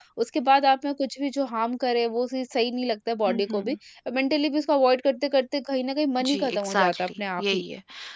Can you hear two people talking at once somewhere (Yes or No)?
Yes